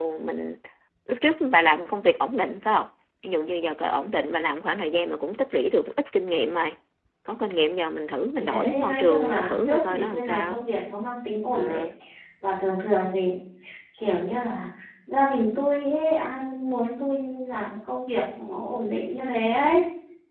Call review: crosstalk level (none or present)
present